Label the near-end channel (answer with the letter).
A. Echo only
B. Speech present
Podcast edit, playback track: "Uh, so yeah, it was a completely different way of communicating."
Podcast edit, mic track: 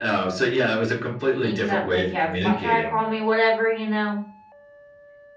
B